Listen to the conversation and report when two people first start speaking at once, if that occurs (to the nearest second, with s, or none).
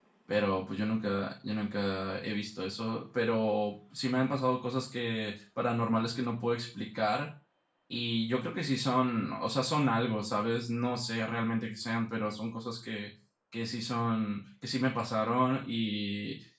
none